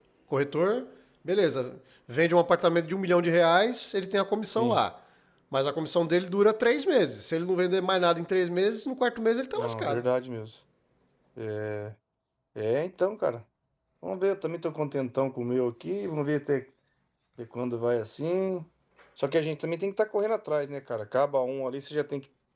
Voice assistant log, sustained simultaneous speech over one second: none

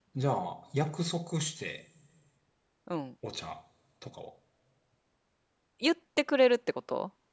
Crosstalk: none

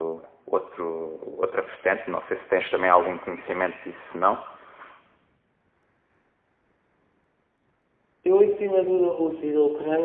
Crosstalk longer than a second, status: none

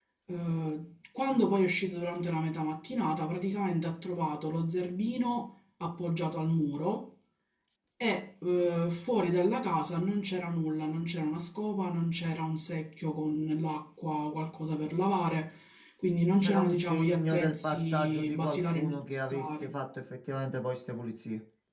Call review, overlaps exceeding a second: present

